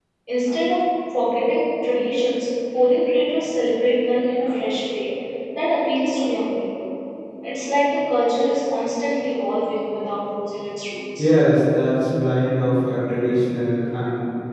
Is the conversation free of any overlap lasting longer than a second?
Yes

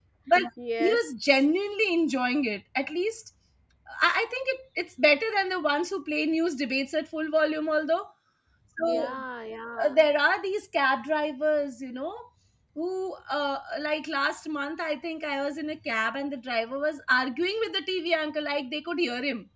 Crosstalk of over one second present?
No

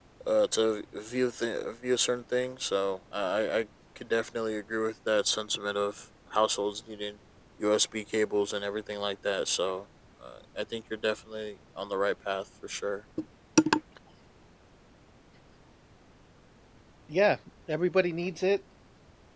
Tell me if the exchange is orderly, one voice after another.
Yes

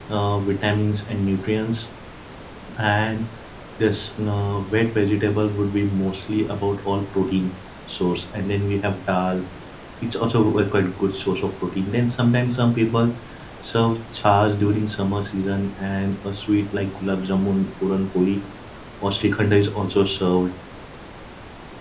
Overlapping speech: No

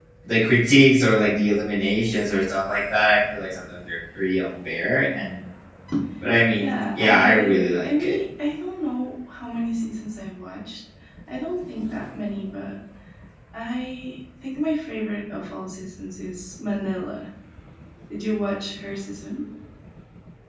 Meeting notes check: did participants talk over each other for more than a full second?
Yes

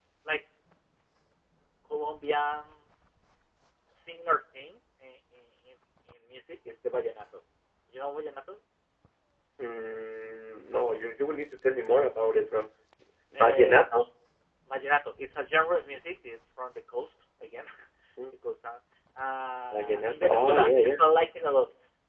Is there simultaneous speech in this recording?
Yes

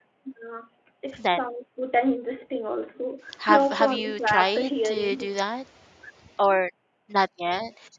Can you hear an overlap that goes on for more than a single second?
Yes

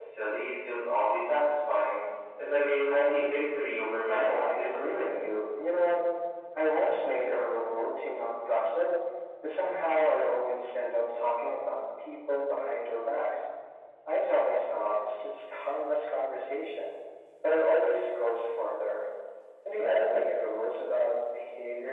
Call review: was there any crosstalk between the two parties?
Yes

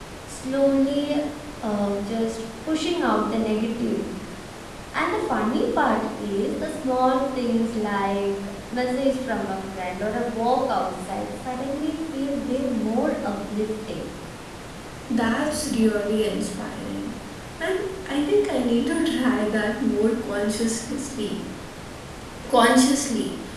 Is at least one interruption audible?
No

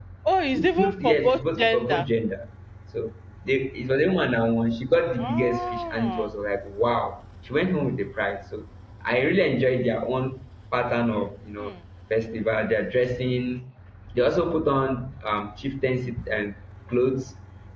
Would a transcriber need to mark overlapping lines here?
Yes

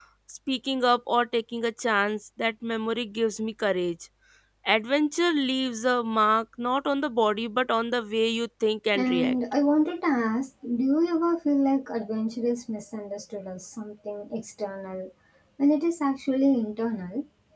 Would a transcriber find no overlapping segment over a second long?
Yes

